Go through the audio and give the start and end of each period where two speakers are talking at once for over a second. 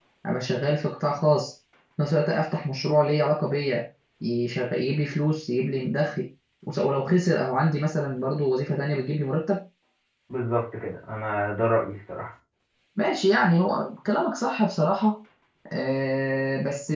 none

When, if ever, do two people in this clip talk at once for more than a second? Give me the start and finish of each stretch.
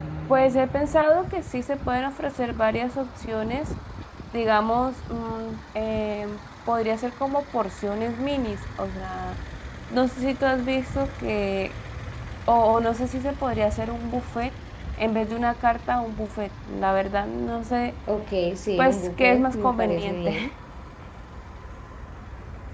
18.8-20.4

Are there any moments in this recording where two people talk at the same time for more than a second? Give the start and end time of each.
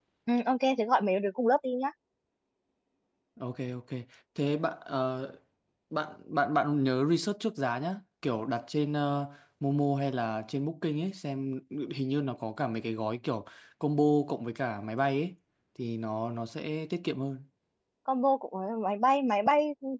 none

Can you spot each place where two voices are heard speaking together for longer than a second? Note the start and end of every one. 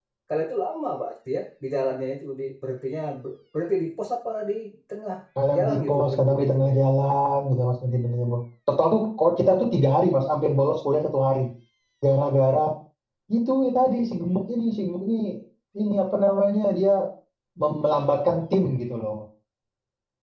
5.6-6.8

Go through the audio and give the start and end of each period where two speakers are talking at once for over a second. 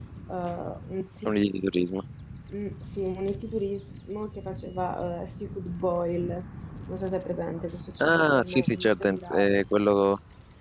8.0-9.6

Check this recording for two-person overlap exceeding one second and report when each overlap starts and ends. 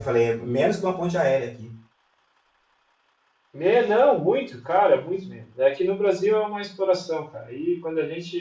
none

